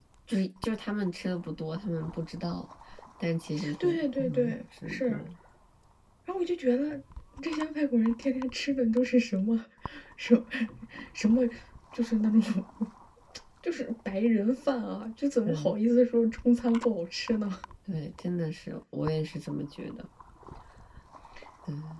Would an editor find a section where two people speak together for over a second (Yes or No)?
Yes